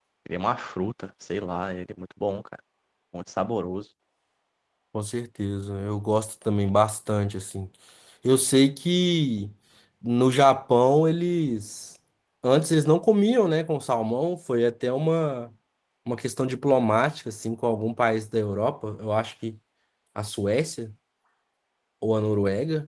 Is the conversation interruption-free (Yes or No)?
Yes